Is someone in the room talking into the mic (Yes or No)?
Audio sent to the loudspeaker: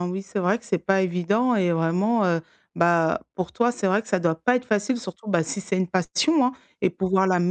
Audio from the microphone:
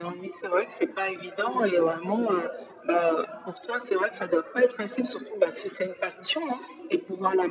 No